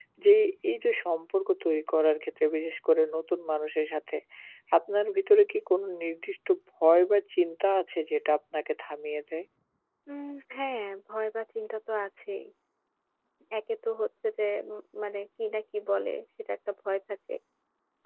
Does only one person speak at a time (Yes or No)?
Yes